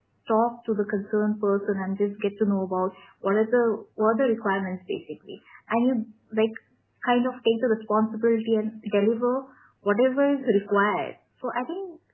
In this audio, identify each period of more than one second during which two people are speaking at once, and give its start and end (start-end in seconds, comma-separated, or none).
none